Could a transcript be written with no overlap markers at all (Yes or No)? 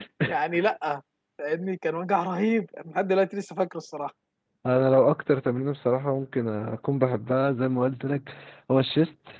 Yes